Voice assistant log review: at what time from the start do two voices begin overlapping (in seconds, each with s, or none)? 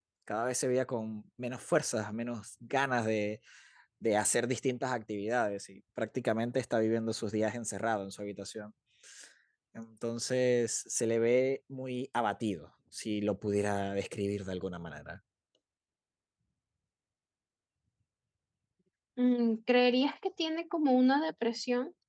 none